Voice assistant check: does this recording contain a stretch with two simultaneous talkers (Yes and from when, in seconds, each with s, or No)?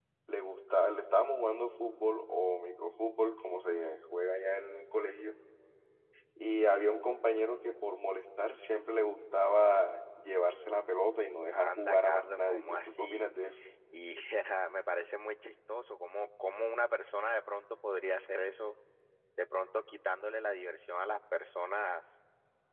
Yes, from 11.5 s